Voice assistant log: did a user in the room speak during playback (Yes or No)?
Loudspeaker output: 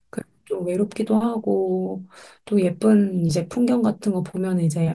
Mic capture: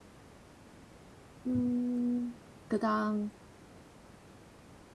Yes